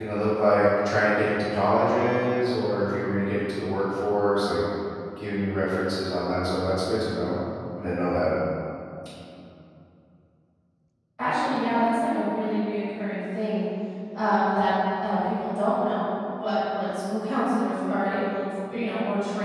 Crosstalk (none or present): none